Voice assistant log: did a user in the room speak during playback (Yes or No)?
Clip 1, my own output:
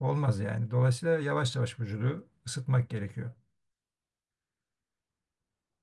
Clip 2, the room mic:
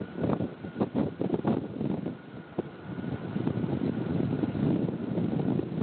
No